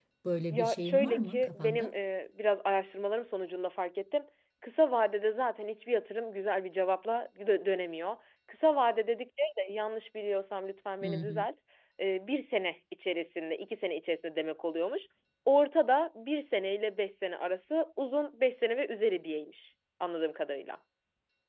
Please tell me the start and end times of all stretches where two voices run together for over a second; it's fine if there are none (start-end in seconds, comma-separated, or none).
0.5-1.9